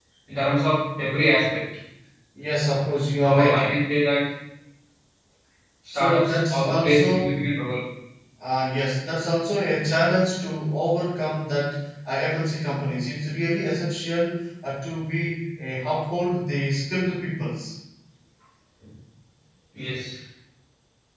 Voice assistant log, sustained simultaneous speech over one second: present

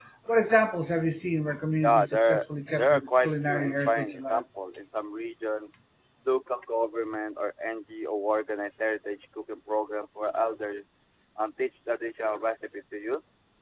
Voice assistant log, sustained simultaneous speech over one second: present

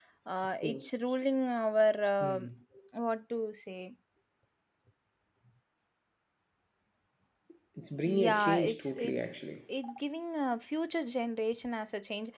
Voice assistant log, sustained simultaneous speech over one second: present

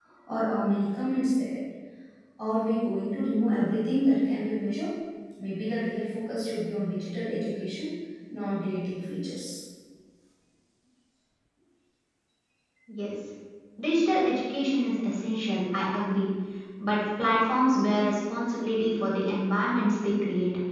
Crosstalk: none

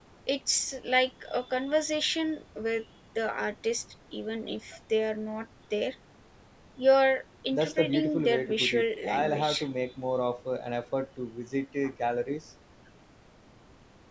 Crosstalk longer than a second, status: present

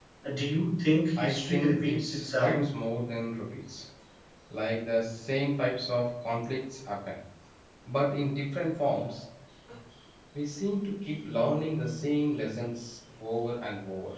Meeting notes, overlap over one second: present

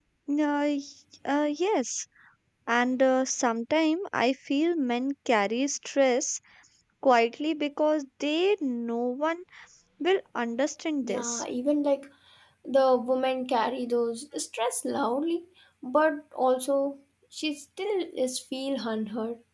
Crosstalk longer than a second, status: none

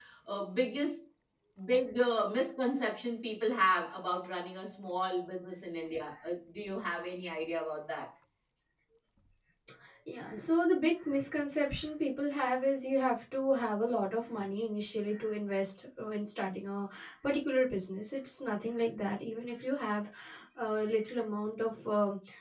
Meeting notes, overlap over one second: none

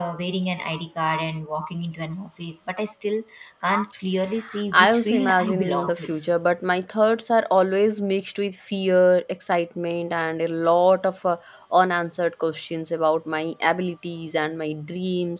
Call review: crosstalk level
present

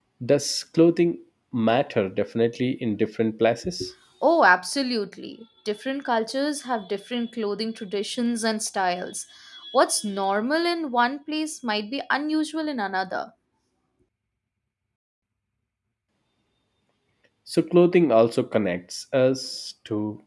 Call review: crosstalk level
none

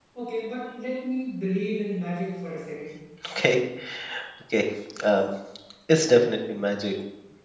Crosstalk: none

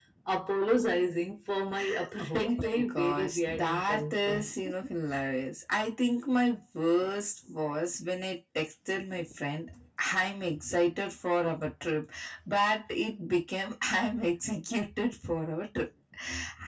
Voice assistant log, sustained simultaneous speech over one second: present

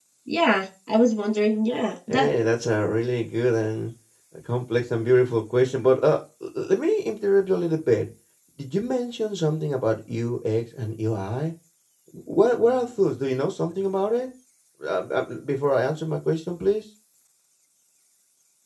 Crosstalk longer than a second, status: none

